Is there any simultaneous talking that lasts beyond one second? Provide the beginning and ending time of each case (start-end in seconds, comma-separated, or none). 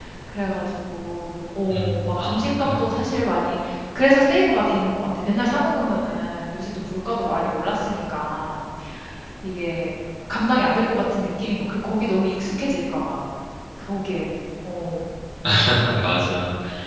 1.7-3.2